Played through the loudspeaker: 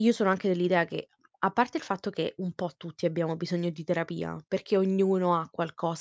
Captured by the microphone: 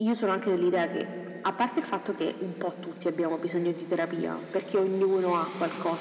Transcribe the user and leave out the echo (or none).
none